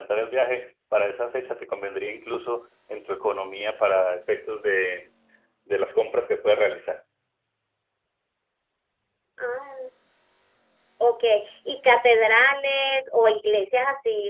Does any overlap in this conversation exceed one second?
No

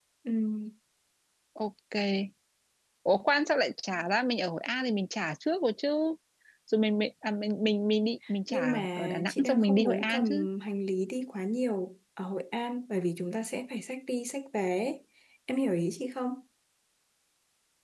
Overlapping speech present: Yes, from 8.5 s

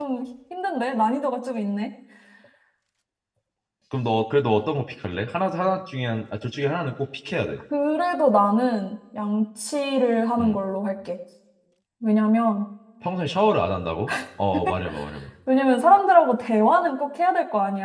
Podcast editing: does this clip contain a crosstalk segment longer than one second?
No

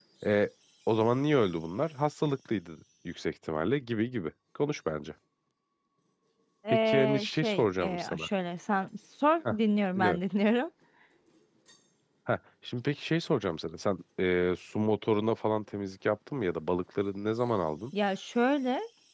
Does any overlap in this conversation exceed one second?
Yes, from 6.8 s

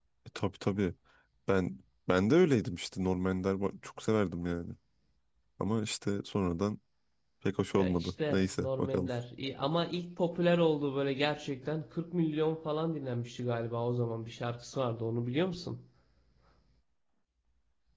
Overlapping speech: Yes, from 7.8 s

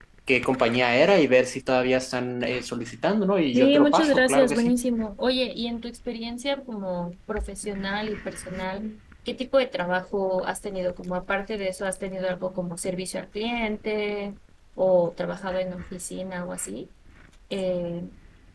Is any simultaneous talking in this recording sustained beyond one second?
Yes, from 3.5 s

